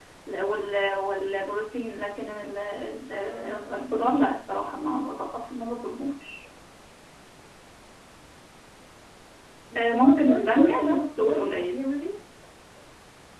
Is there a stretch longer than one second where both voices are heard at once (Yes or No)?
Yes